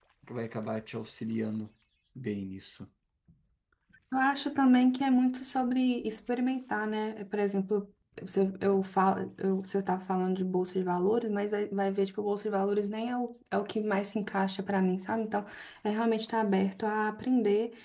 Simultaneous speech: No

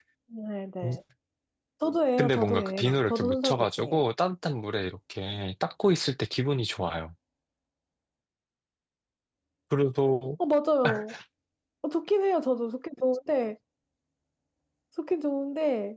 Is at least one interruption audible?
Yes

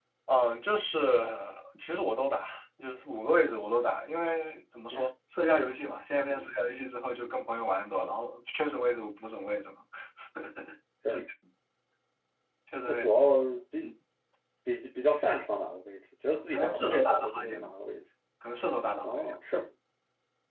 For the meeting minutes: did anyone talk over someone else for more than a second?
Yes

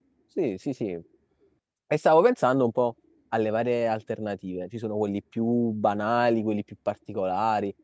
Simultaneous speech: No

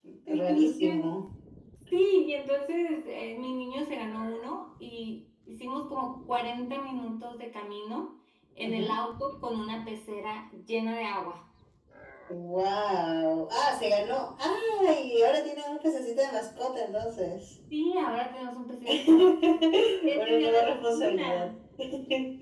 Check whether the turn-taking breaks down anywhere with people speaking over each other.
Yes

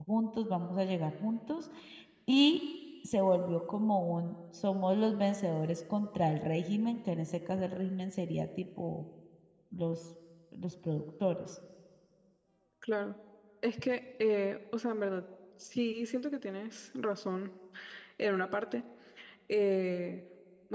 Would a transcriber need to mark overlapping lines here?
No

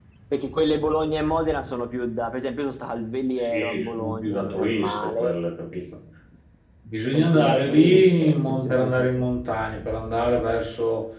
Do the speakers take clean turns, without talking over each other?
No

